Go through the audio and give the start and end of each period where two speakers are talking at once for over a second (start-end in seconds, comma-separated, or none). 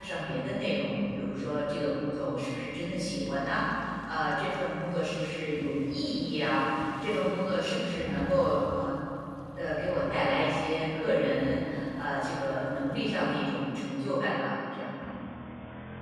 none